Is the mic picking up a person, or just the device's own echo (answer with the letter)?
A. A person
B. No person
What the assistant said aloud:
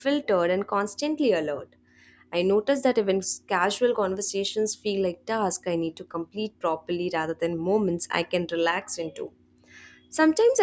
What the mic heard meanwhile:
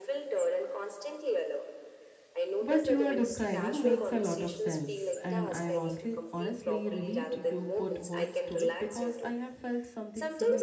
A